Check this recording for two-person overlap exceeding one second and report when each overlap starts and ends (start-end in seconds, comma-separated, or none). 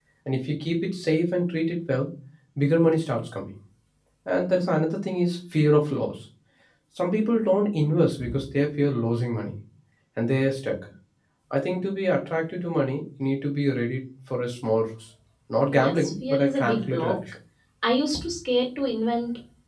15.7-17.2